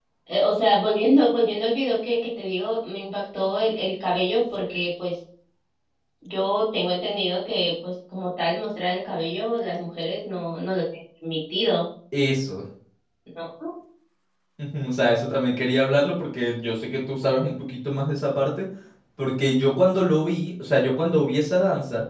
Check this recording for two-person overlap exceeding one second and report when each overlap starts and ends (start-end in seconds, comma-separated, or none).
none